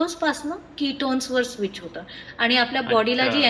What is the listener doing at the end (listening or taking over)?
listening